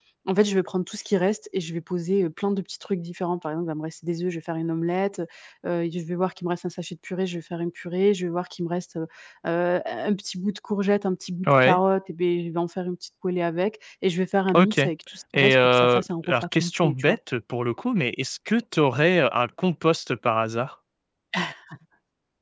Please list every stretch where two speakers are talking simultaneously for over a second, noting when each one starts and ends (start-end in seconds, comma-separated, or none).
15.3-17.2